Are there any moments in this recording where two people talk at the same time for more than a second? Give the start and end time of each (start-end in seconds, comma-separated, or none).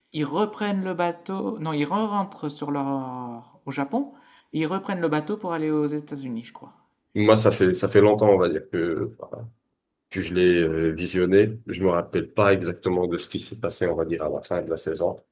none